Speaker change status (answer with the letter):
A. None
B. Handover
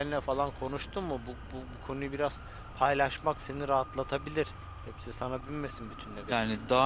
B